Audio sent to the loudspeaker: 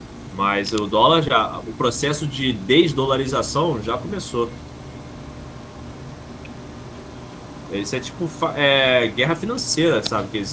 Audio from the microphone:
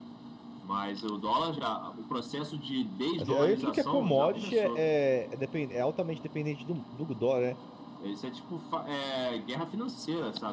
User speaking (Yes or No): Yes